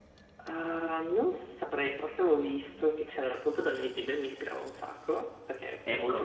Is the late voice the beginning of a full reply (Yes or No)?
Yes